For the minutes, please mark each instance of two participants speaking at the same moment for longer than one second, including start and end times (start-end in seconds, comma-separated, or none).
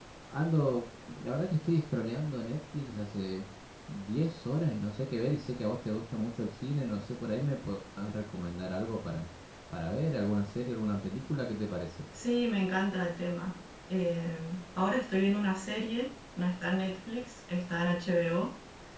none